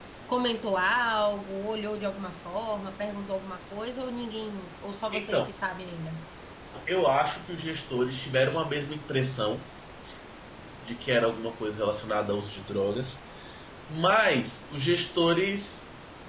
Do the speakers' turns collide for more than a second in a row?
No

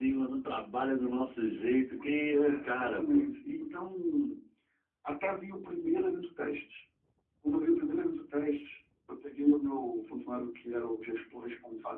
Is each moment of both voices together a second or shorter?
No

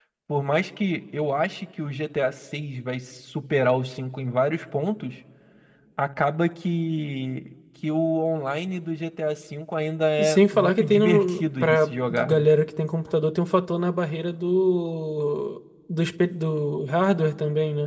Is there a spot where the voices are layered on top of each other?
Yes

